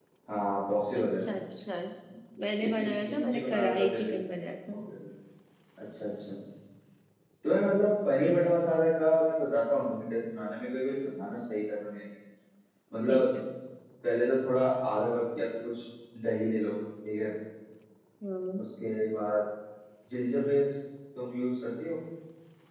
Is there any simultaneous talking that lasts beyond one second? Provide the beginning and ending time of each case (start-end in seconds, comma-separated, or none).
2.6-4.1